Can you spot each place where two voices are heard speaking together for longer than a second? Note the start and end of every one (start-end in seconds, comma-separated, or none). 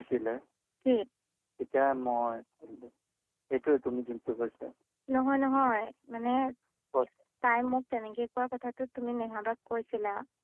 none